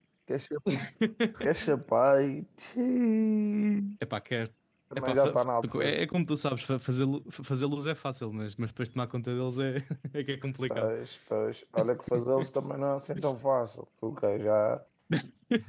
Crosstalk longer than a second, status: none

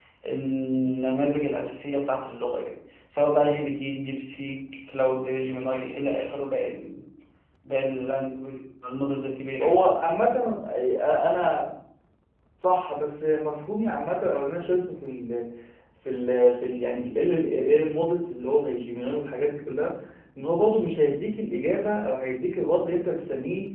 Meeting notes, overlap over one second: none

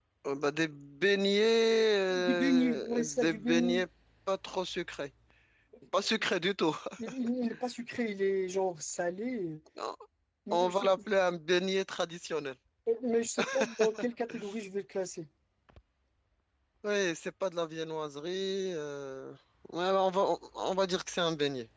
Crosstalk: present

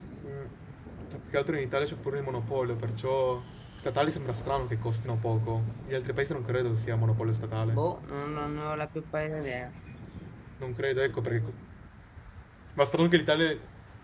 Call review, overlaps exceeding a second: none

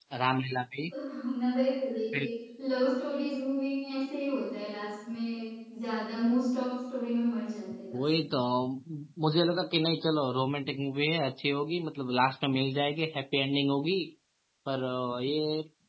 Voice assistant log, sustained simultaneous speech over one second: none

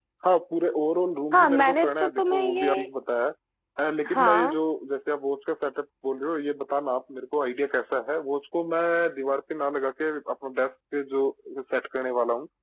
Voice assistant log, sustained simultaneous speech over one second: present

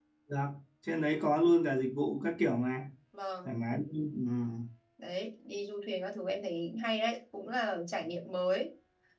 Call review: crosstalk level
none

